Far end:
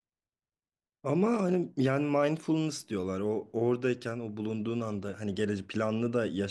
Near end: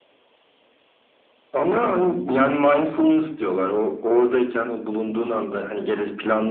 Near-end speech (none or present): none